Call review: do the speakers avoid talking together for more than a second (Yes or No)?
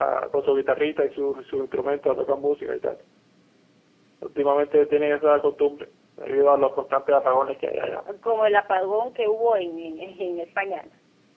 Yes